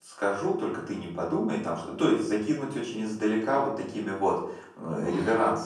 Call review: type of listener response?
listening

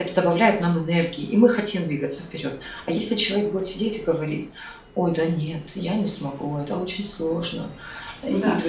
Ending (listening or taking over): listening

